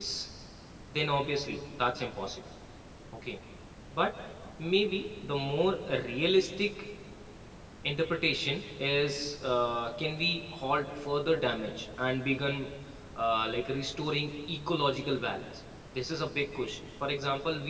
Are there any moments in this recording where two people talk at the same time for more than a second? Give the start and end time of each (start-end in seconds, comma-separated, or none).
none